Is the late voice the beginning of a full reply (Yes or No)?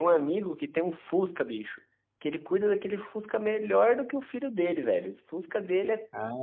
No